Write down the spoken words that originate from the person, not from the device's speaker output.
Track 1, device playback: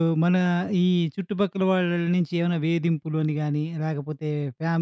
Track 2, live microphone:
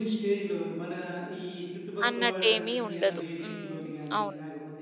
అన్నట్టేమీ ఉండదు. హ్మ్. అవును.

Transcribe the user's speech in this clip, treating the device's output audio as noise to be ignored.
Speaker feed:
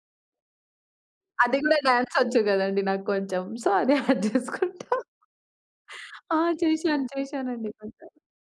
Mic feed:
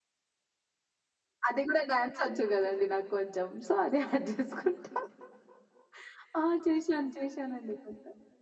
none

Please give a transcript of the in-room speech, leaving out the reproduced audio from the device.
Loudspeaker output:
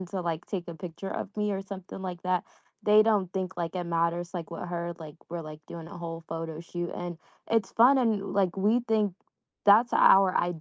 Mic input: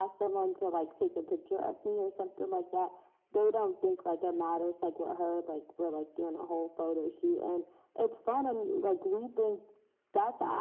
none

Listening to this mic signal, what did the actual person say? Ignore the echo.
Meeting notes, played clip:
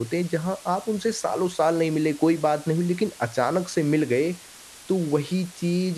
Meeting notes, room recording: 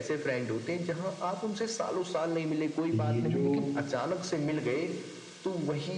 ये जो

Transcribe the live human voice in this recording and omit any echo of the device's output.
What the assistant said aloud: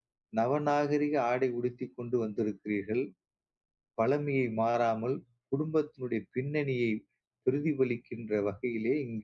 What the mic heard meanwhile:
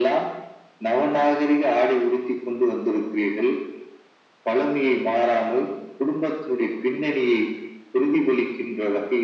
none

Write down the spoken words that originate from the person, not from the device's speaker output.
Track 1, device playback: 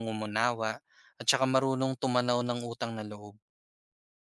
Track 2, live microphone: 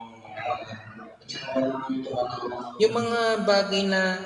yung mga bagay na

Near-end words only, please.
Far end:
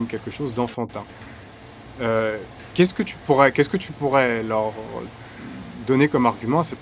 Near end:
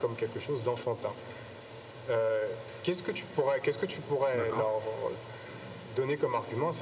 d'accord.

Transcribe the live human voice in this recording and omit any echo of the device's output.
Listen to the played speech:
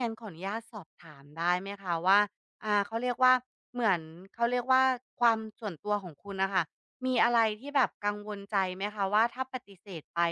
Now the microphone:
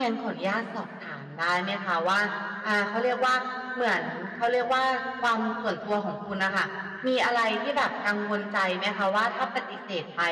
none

